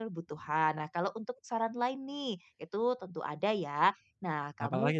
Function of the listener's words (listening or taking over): listening